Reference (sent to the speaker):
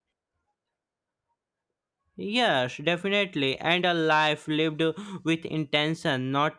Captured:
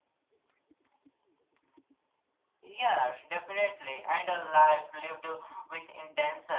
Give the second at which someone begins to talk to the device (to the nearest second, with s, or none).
none